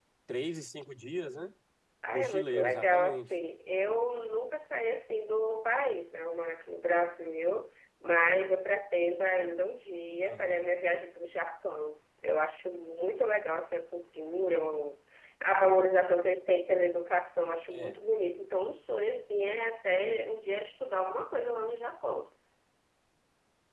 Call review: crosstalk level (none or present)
present